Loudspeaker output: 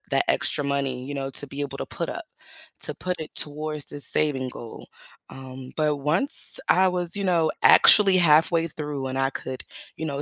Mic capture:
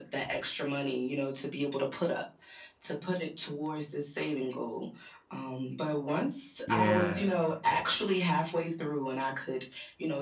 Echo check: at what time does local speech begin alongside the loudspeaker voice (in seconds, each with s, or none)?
6.7 s